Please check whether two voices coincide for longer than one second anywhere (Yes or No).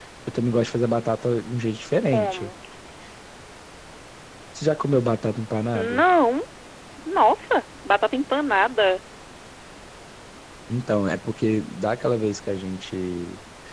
No